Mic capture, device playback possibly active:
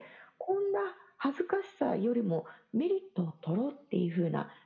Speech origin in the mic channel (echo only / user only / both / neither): echo only